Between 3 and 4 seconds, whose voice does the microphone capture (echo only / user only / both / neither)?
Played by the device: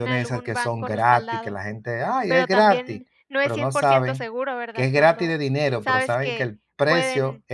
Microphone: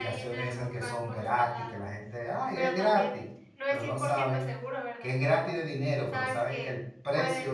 echo only